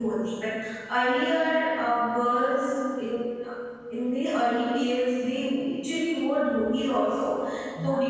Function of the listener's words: listening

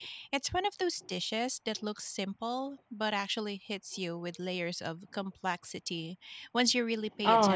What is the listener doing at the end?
taking over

